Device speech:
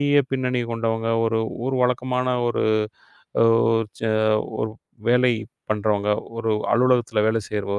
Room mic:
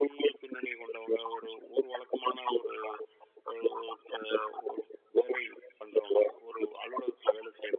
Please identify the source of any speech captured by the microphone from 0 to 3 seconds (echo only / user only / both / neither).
echo only